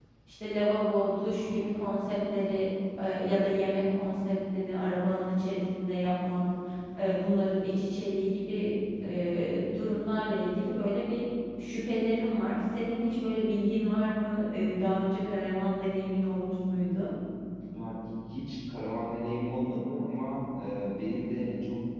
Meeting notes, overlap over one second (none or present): none